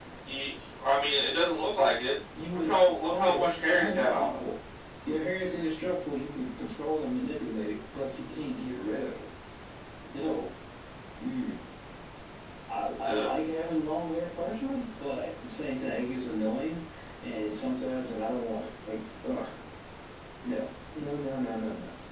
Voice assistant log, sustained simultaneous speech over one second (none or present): present